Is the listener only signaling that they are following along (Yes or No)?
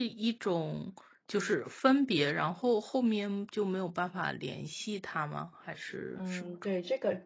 No